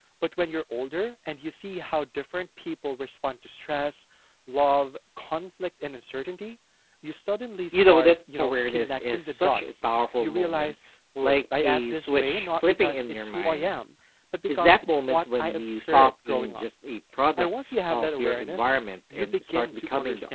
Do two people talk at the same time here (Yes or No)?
Yes